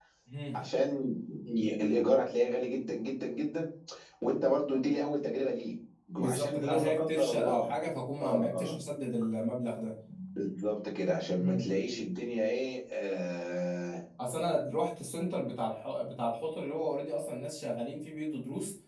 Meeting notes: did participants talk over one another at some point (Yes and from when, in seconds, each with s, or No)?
Yes, from 6.2 s